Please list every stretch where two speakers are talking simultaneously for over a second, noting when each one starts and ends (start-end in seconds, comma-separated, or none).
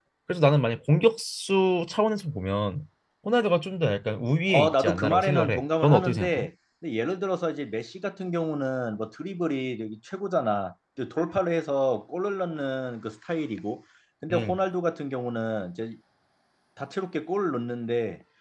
4.5-6.5